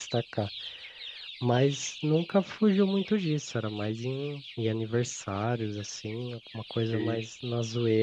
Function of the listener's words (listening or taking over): listening